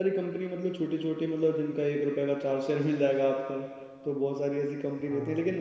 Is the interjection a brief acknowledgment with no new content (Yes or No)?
Yes